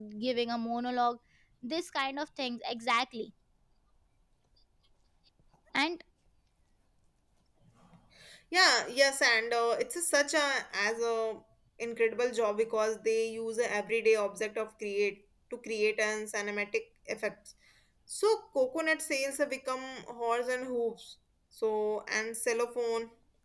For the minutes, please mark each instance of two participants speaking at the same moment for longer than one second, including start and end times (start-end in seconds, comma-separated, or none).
none